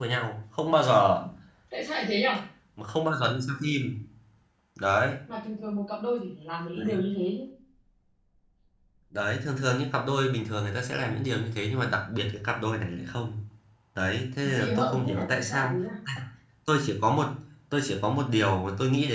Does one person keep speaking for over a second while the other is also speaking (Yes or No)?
Yes